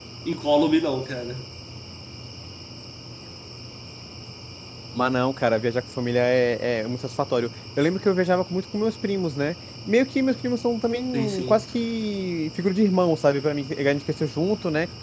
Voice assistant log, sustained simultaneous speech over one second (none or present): none